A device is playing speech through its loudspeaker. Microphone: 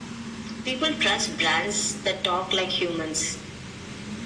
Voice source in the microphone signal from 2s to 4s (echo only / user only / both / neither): echo only